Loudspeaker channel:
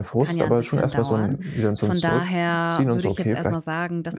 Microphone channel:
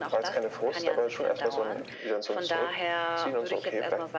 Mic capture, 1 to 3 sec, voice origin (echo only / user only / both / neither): echo only